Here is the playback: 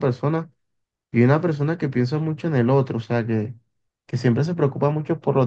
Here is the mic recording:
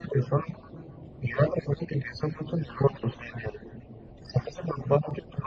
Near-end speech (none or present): none